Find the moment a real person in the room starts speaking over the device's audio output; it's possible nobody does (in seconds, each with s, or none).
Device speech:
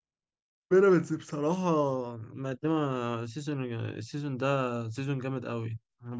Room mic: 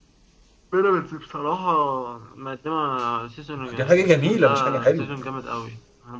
3.6 s